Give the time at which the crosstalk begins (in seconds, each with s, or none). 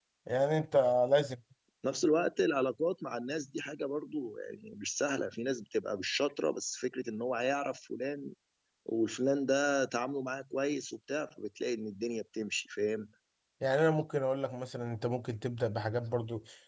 none